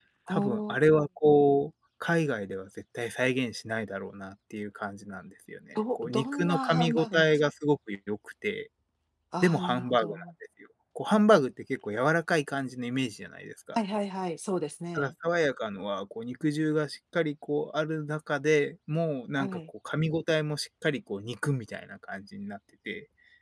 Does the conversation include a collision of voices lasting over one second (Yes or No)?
Yes